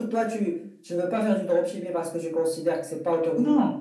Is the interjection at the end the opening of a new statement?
Yes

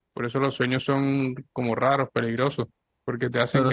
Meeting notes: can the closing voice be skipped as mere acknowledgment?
Yes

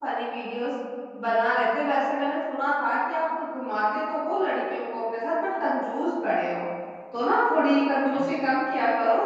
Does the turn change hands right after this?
No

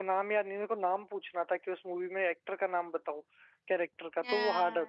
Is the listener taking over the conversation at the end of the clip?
Yes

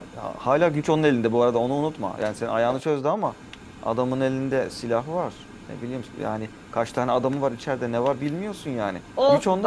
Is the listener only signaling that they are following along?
No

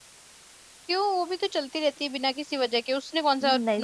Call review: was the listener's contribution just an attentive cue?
No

